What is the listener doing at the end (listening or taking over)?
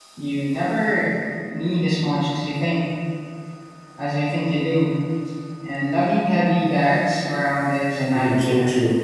taking over